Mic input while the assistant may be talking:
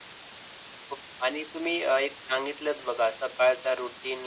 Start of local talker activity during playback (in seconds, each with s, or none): none